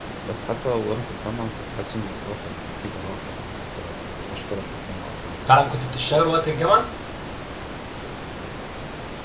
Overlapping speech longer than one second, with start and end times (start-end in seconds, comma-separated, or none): none